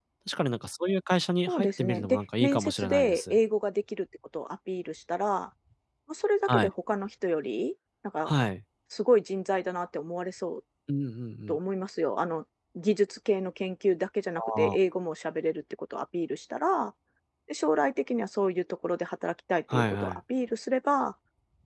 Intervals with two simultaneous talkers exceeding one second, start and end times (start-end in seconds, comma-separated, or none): 1.5-3.3